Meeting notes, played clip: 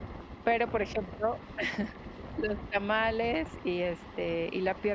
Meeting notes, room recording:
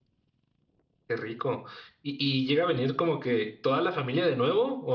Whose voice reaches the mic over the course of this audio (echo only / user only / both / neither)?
user only